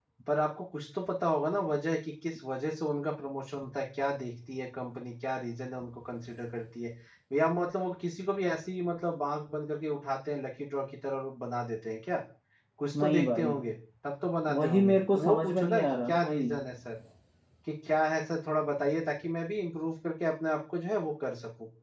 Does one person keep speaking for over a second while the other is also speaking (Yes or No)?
Yes